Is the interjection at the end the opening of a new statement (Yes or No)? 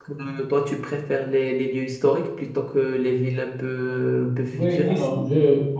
Yes